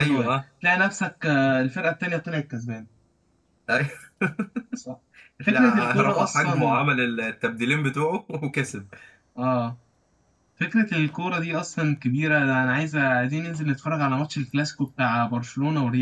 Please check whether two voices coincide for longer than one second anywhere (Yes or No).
Yes